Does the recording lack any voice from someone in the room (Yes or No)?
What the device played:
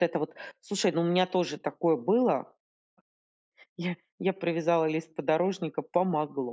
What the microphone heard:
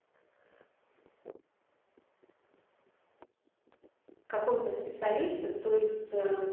No